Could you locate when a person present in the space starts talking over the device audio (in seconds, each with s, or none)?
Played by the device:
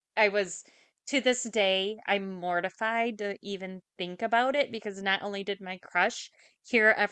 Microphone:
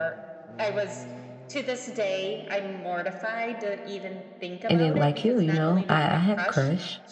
4.7 s